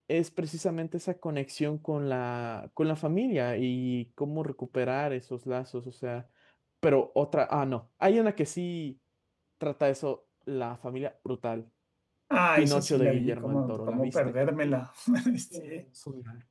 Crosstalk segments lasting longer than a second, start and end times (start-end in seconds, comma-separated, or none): 12.6-14.3